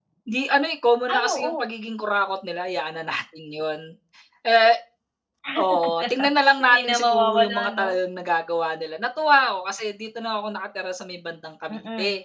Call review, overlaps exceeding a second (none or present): present